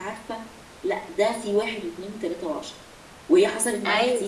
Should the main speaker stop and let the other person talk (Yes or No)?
No